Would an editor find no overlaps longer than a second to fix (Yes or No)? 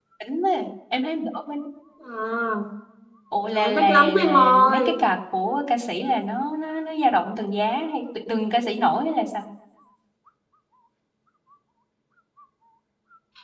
No